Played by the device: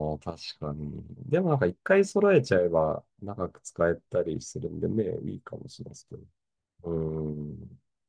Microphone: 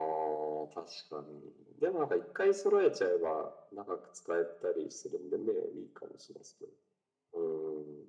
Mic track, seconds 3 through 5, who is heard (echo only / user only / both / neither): echo only